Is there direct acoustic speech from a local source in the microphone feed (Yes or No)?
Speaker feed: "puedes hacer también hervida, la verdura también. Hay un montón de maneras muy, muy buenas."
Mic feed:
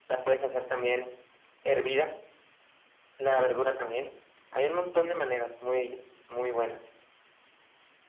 No